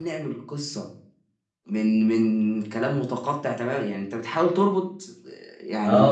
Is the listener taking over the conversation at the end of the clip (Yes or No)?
Yes